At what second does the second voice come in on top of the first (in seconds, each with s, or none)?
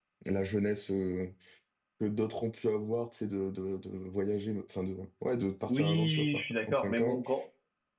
5.7 s